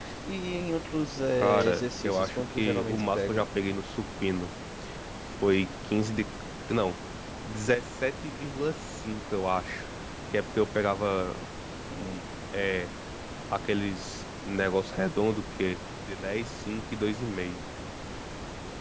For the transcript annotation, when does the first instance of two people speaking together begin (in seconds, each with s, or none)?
1.4 s